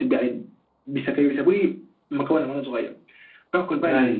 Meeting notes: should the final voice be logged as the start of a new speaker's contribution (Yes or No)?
No